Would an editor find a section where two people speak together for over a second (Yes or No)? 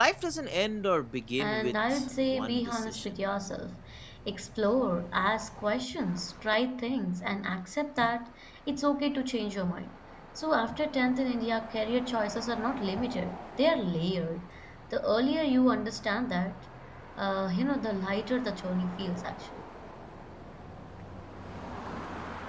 Yes